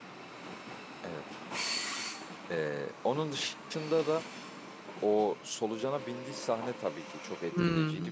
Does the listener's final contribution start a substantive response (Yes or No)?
No